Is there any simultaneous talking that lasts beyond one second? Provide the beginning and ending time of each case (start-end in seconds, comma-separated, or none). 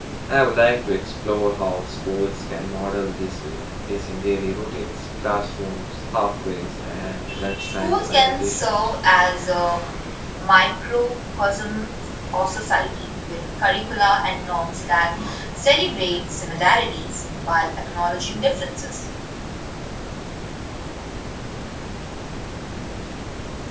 7.6-8.9